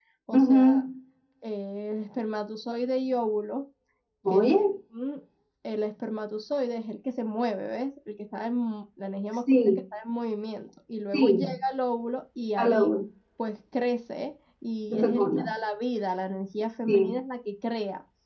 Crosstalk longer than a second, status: none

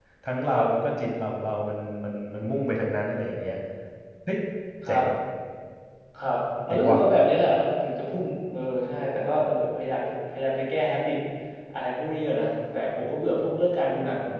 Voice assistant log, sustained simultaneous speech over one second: none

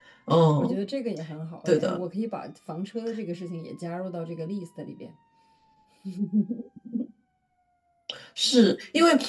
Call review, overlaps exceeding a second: none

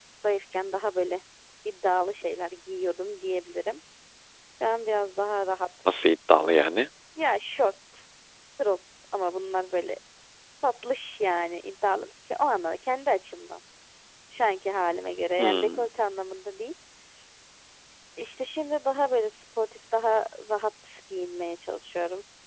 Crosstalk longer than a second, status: none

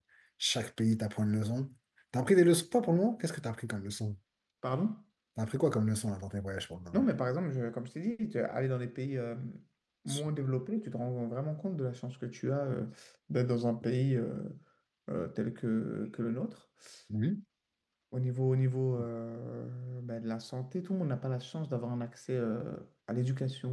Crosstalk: none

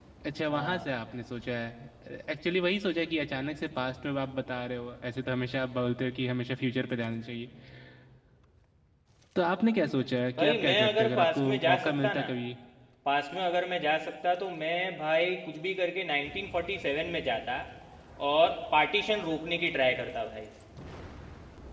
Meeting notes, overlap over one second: present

